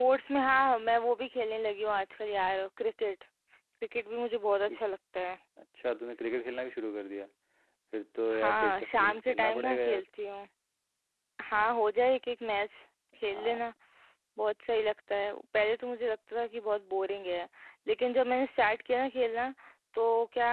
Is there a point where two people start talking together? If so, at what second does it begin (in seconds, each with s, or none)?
8.4 s